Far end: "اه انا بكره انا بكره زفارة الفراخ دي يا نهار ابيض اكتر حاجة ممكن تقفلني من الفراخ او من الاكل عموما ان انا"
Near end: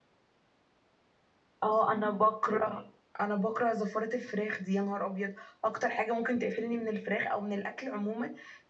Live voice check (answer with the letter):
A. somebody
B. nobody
B